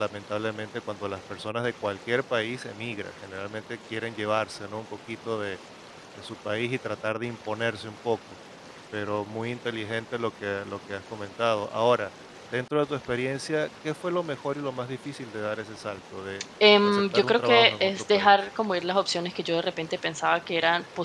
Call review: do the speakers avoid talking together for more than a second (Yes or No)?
No